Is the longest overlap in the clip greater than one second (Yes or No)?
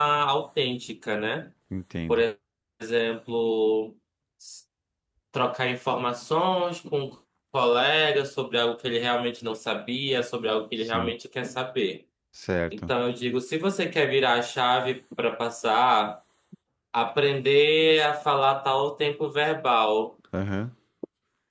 No